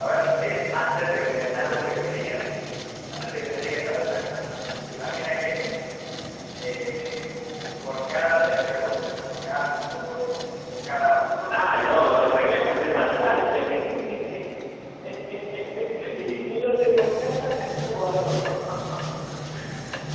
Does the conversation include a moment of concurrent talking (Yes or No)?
Yes